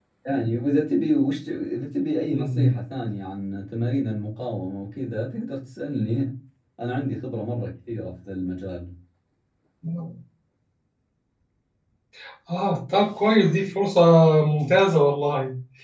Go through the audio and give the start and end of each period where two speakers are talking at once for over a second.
none

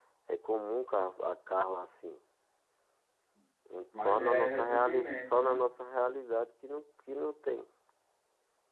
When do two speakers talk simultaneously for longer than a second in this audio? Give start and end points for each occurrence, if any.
4.0-5.6

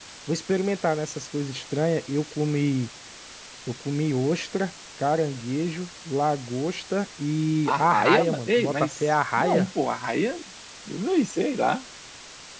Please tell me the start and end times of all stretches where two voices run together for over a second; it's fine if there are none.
7.7-9.7

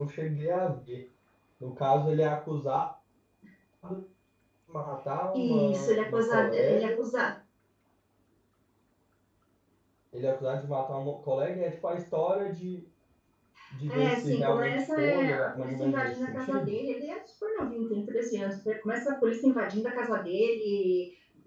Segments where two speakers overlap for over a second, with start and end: 5.3-7.0, 13.9-16.8

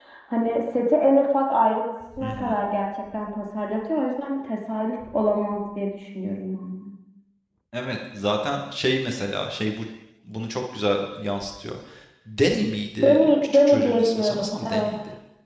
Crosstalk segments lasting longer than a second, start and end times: 13.0-14.9

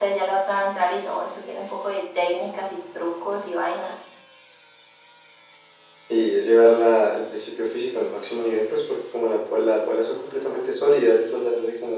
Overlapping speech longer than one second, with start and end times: none

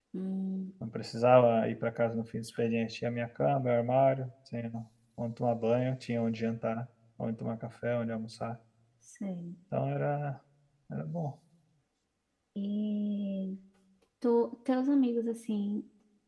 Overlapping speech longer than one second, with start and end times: none

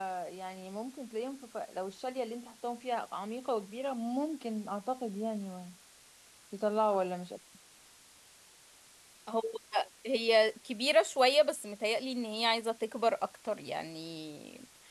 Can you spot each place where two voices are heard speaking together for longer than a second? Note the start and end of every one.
none

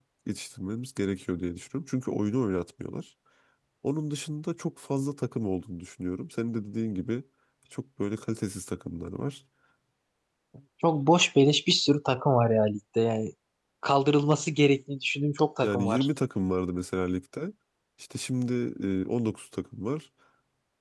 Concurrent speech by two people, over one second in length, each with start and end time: none

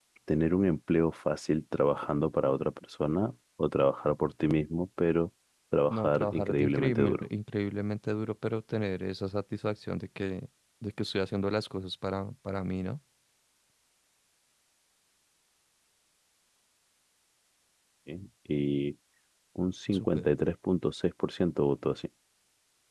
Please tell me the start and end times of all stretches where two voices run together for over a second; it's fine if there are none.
5.9-7.2

